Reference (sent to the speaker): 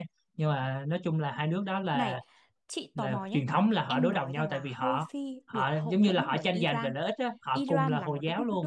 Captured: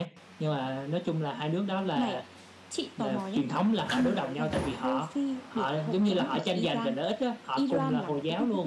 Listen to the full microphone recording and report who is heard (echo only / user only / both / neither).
echo only